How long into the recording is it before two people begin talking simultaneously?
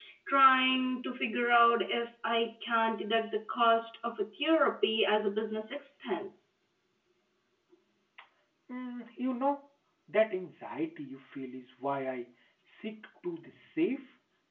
none

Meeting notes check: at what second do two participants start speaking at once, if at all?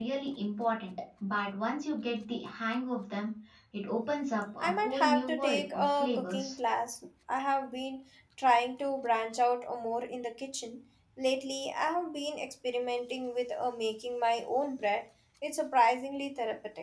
4.6 s

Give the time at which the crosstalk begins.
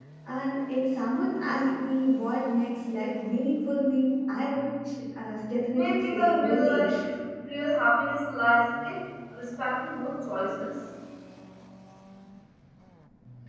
5.7 s

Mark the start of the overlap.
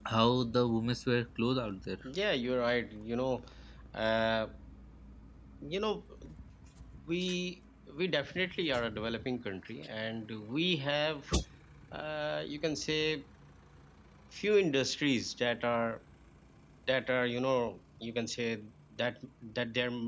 none

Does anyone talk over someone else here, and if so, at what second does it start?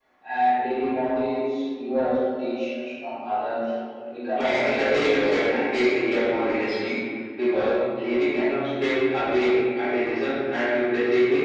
4.3 s

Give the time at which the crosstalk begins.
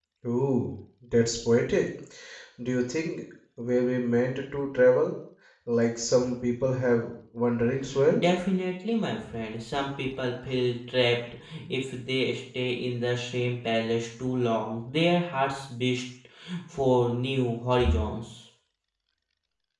none

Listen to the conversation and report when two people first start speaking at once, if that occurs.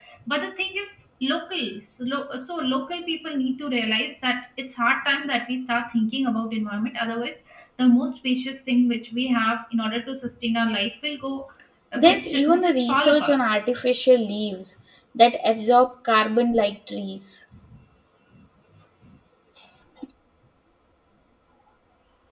12.0 s

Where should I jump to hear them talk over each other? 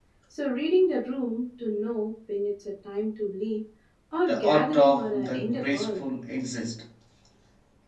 4.3 s

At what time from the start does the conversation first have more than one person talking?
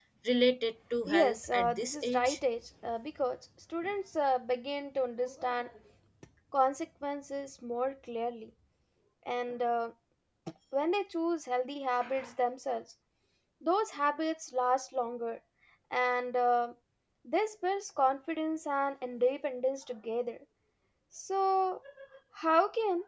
1.2 s

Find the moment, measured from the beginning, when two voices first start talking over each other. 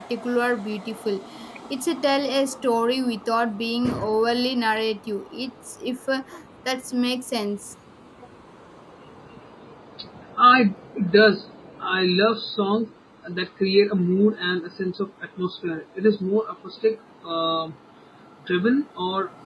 none

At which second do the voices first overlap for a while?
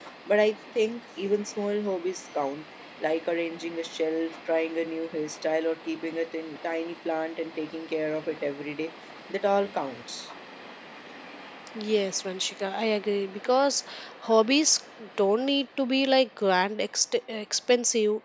none

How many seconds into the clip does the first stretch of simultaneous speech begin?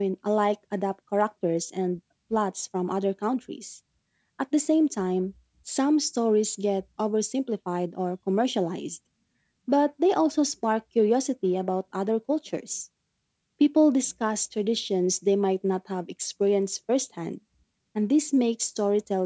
none

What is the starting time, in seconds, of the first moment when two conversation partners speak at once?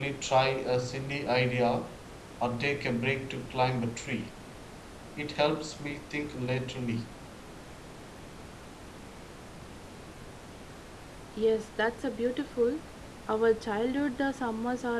none

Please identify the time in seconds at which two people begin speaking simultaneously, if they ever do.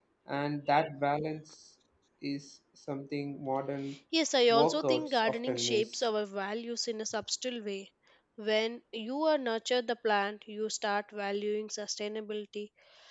4.5 s

